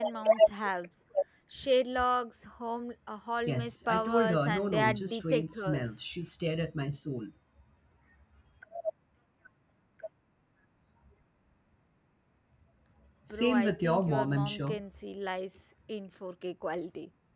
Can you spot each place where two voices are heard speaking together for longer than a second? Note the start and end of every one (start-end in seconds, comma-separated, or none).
3.5-6.0, 13.3-14.8